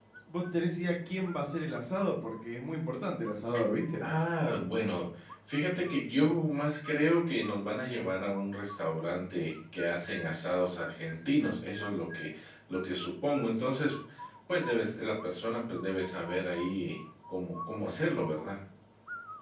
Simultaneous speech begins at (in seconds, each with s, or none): none